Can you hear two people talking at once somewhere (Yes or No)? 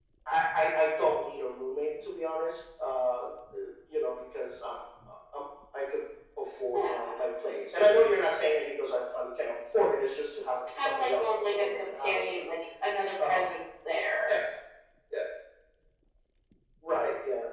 Yes